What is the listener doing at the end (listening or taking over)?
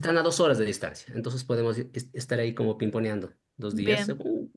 listening